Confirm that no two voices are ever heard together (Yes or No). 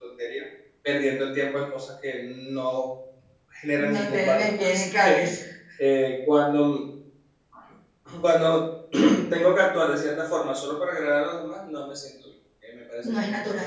No